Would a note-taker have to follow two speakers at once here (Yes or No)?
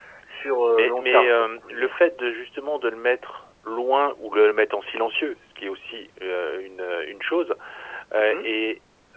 Yes